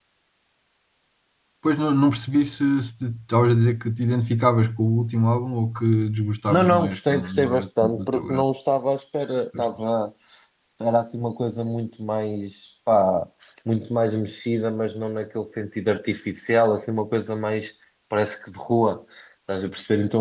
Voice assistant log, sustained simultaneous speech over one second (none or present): present